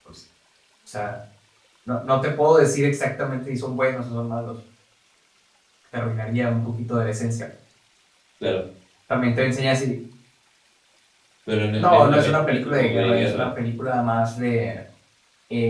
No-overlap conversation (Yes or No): No